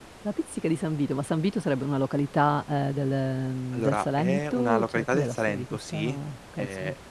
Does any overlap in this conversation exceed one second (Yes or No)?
Yes